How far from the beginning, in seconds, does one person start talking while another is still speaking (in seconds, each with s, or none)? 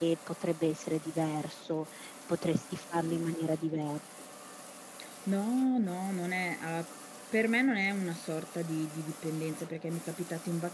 none